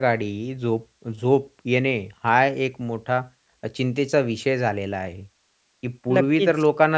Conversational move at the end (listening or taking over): listening